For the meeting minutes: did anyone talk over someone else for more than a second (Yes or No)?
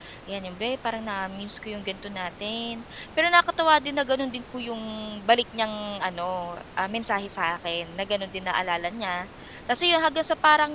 No